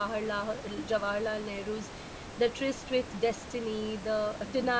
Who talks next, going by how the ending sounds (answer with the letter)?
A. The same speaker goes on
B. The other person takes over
A